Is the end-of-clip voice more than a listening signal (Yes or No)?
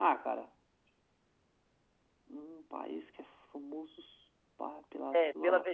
Yes